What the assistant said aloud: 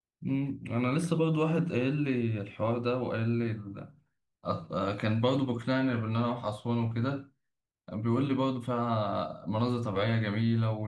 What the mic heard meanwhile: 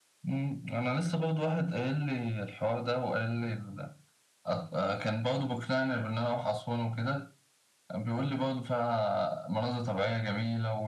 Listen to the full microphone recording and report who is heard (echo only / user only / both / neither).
echo only